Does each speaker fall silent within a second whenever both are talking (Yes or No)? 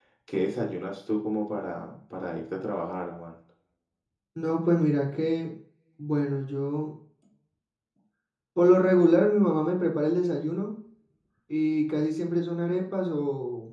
Yes